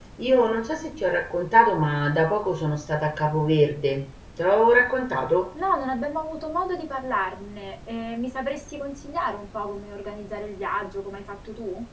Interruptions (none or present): none